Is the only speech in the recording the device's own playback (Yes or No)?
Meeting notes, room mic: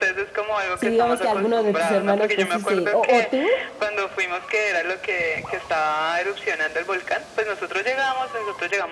No